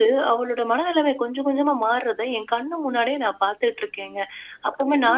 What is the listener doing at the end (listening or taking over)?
listening